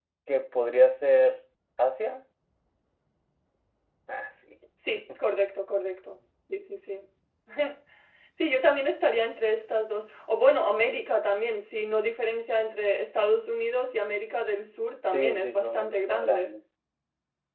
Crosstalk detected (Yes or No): Yes